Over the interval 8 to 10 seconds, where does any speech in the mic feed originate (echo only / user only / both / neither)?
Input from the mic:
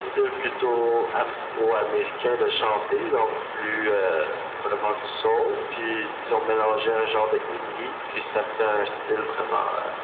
echo only